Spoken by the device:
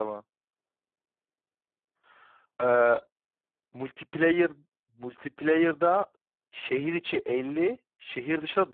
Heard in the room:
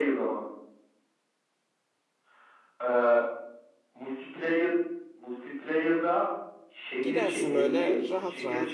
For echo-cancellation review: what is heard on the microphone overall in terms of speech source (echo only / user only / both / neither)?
both